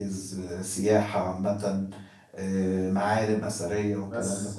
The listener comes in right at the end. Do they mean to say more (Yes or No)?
Yes